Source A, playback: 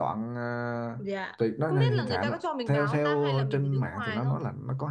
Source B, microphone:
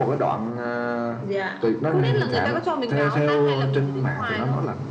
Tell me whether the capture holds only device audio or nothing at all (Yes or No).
Yes